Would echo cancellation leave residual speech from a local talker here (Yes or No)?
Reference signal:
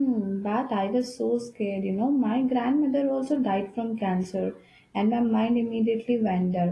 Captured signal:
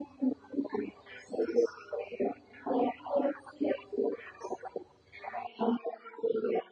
No